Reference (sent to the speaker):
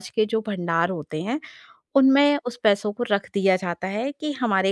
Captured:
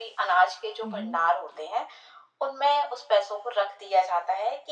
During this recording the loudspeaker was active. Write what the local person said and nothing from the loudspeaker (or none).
हुँ, हुँ।